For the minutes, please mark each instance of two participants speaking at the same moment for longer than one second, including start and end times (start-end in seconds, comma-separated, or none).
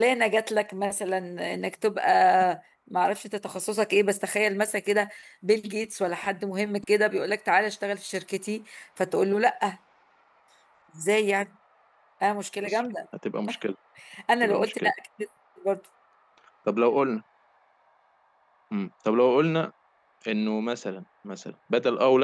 none